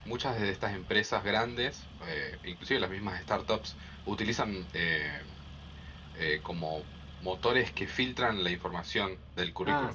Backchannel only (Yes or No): No